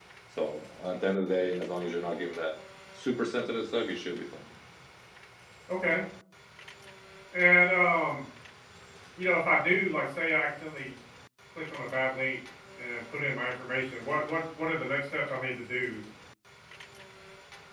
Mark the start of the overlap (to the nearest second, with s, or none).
none